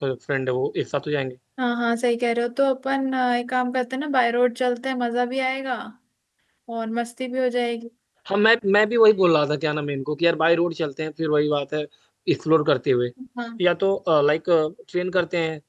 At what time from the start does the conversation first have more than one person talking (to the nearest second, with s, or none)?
none